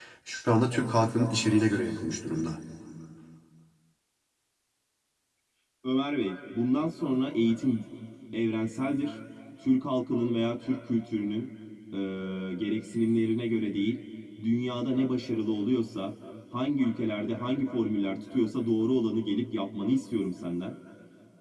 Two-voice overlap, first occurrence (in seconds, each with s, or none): none